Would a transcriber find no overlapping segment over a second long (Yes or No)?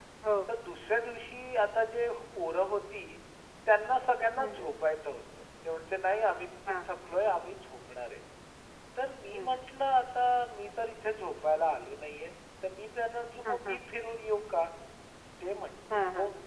Yes